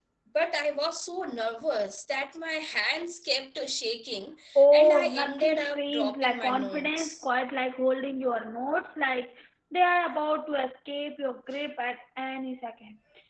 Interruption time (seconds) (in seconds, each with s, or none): 4.7 s